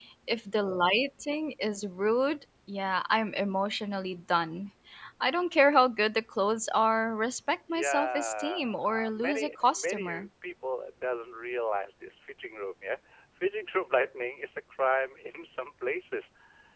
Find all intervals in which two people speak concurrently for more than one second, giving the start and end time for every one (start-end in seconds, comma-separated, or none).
7.7-10.3